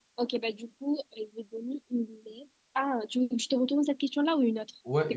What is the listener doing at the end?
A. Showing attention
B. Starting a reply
B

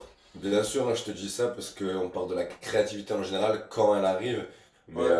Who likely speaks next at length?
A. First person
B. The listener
A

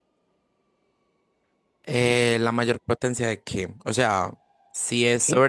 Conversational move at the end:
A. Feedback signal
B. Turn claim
A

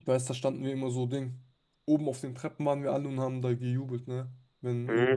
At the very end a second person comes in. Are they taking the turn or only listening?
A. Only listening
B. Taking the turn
A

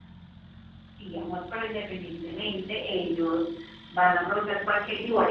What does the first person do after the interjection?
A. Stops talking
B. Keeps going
A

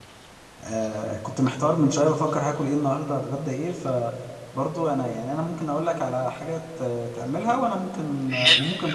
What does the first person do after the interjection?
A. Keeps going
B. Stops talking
B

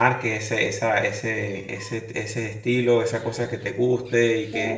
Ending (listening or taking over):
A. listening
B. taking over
A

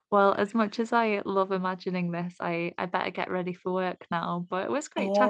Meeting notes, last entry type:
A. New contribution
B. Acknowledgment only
A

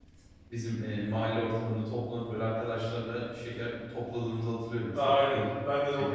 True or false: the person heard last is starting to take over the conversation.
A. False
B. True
B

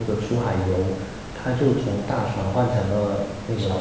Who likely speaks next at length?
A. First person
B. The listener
A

